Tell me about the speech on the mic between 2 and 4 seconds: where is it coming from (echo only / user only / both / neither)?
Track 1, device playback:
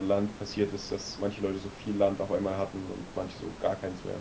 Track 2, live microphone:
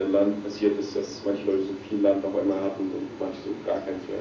echo only